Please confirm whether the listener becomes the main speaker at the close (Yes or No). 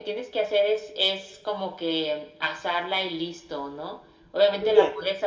No